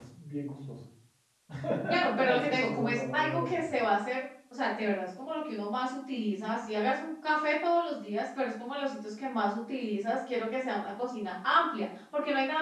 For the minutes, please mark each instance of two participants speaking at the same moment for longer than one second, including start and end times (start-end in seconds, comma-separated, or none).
2.1-3.7